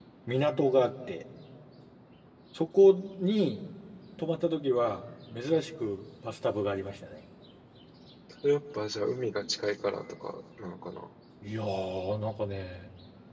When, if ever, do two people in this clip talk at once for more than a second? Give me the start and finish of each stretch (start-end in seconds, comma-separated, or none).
none